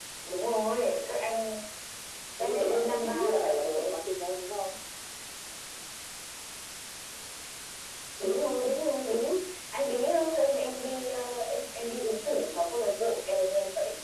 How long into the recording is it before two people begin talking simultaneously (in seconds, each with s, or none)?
2.4 s